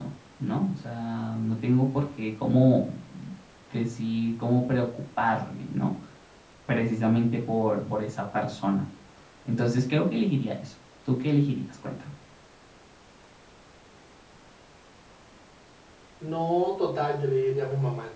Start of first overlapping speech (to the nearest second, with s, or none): none